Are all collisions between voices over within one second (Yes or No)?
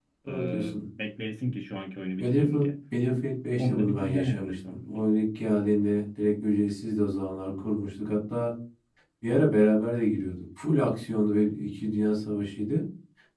No